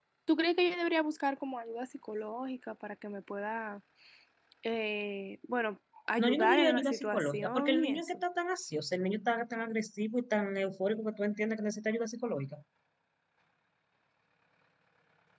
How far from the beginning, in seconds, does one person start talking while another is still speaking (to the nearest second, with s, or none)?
6 s